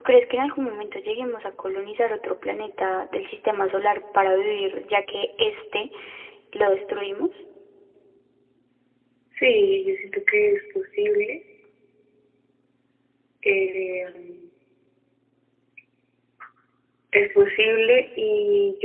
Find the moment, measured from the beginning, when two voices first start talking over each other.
none

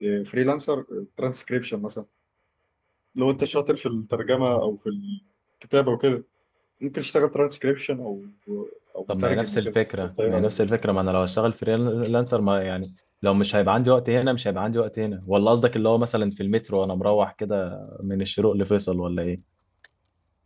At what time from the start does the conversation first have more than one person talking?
9.1 s

